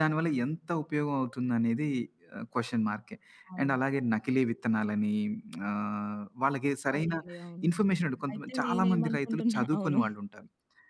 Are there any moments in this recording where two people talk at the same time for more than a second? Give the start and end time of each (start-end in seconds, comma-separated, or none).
8.3-10.0